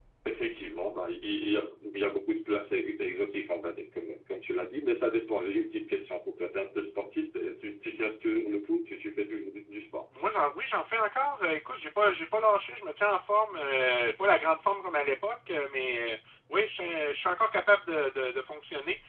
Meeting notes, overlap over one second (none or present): none